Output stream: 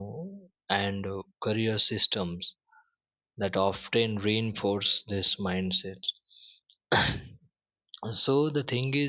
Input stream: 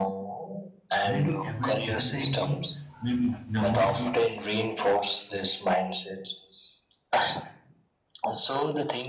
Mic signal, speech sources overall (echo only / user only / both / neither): both